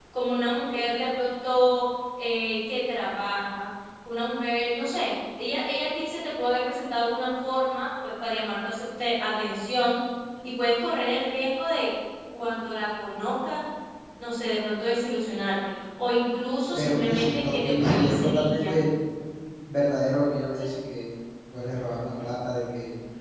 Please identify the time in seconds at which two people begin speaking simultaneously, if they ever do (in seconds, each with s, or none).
16.7 s